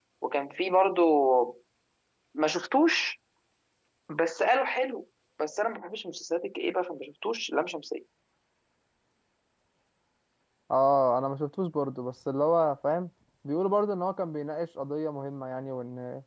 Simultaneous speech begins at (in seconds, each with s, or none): none